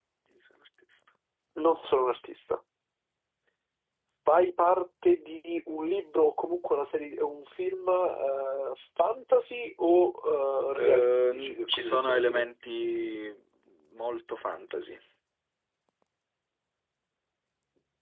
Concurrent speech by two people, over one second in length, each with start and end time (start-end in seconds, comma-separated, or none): 10.8-12.4